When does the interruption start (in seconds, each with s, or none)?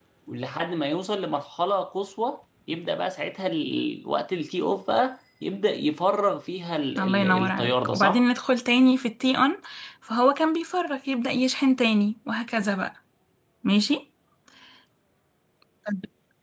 7.0 s